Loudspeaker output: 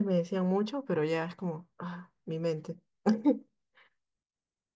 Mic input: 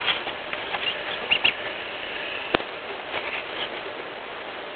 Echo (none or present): none